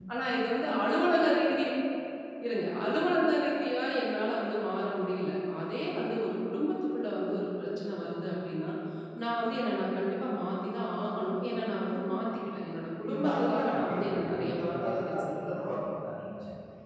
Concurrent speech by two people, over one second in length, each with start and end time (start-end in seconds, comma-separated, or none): 13.1-15.5